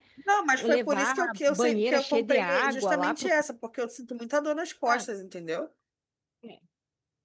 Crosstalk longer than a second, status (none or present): present